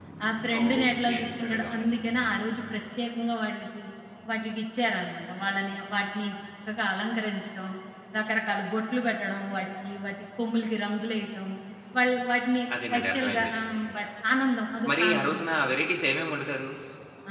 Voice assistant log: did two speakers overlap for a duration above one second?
Yes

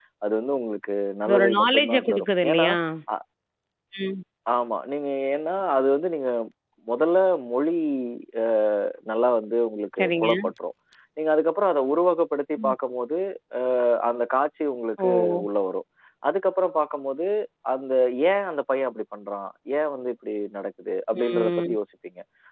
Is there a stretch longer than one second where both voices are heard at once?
Yes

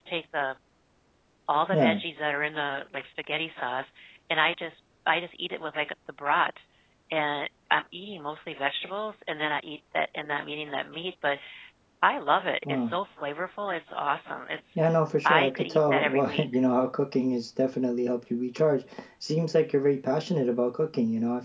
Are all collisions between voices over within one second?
No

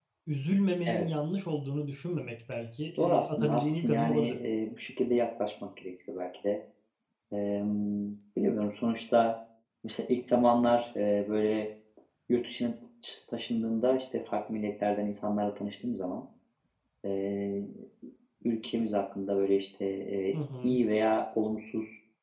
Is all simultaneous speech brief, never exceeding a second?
No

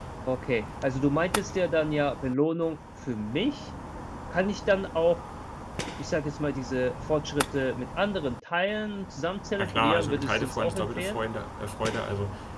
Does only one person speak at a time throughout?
No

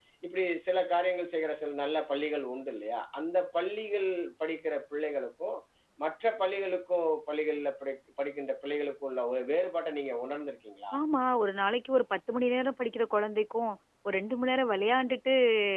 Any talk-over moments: No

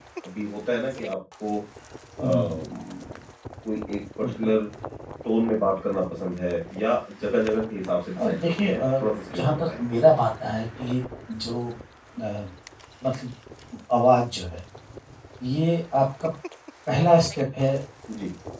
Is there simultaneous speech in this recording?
Yes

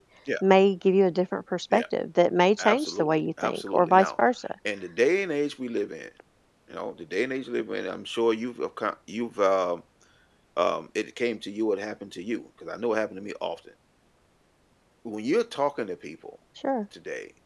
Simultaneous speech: Yes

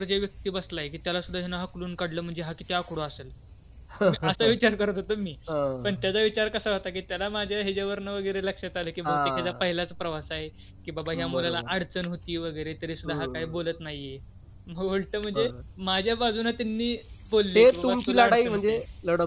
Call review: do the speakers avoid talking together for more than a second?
No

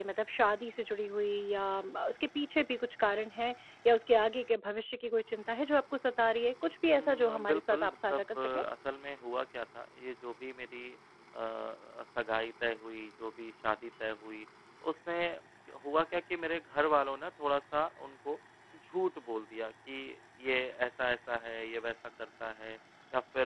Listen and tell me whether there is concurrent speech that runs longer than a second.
Yes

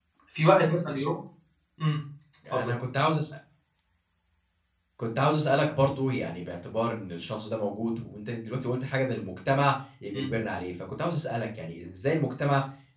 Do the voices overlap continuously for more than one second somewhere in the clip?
No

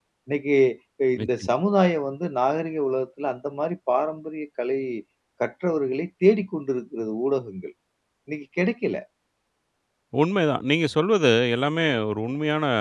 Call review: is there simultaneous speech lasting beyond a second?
No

